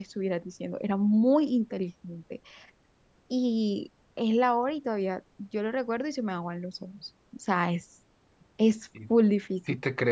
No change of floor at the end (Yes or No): No